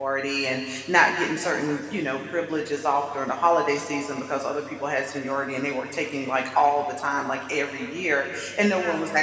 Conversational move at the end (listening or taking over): listening